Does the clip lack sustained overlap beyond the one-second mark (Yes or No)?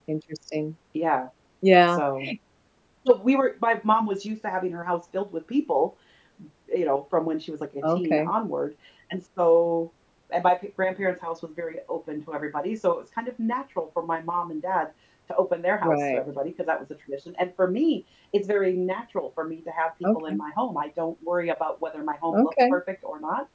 Yes